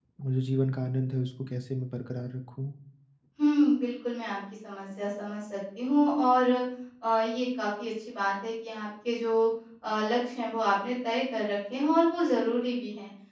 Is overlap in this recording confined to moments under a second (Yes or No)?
Yes